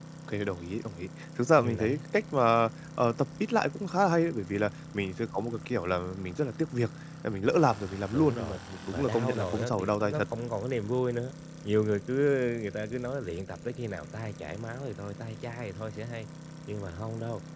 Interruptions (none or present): present